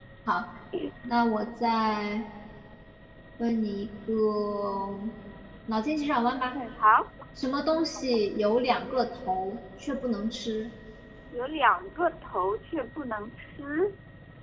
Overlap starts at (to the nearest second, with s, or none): none